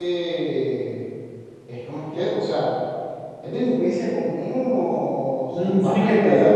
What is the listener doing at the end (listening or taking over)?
taking over